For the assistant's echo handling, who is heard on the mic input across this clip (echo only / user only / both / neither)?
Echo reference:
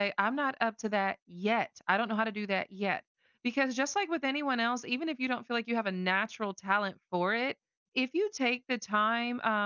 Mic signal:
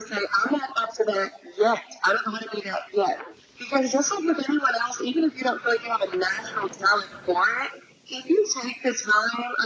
echo only